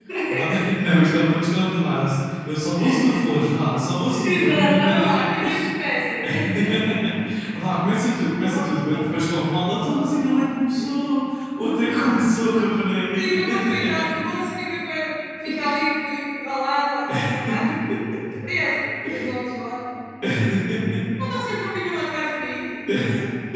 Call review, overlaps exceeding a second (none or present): present